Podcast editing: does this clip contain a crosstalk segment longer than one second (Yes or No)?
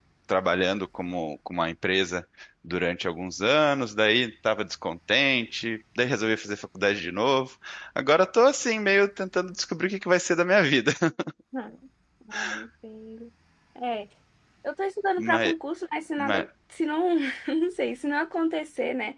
No